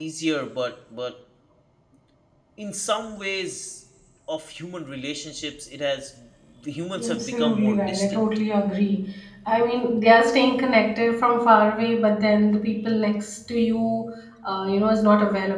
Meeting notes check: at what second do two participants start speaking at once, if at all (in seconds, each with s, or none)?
7.0 s